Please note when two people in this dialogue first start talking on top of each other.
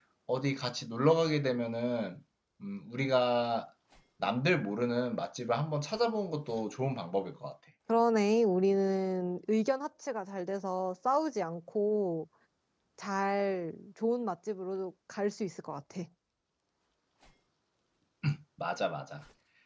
none

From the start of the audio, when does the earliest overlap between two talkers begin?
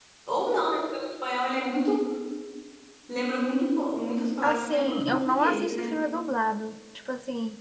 4.4 s

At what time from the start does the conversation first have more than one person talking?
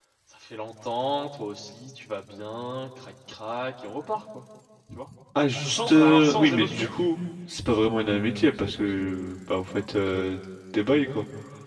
5.6 s

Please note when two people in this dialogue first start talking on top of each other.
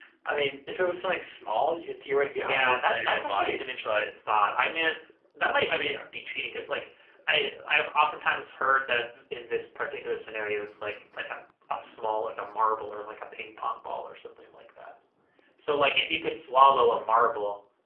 2.3 s

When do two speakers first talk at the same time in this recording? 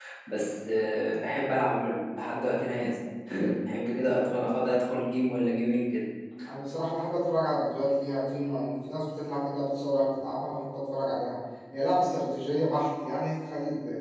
none

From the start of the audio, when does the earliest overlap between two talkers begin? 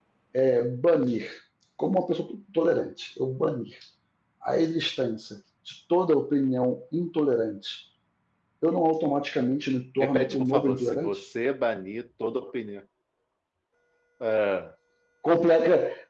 10.0 s

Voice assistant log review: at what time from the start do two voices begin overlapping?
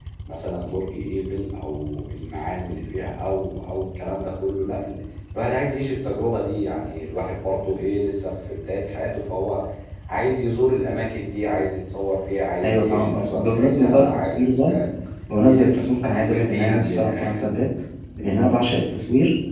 12.6 s

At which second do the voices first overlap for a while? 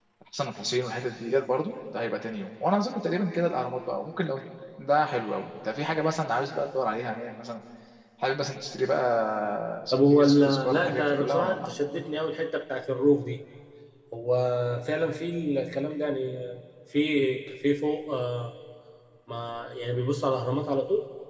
9.9 s

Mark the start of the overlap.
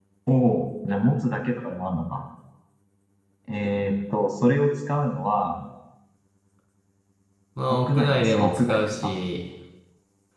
7.9 s

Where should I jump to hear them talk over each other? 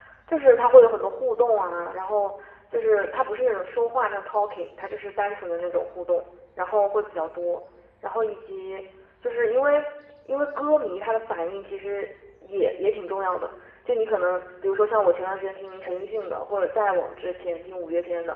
none

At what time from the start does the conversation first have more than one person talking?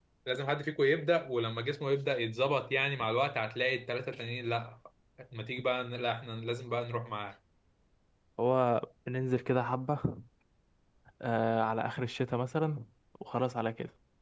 none

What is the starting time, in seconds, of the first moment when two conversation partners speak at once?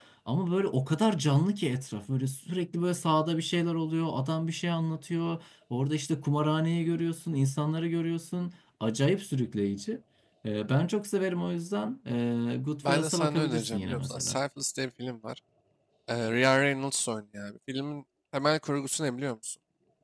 12.8 s

